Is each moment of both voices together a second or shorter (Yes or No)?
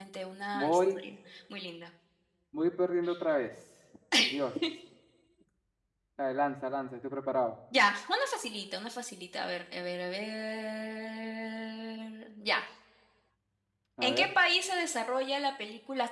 Yes